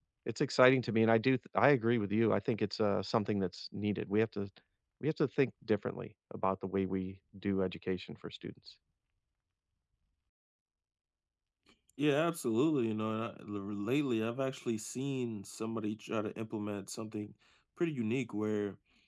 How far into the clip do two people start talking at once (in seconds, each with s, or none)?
none